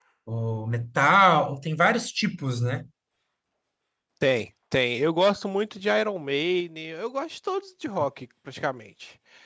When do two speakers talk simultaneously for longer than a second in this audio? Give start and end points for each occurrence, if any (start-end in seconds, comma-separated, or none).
none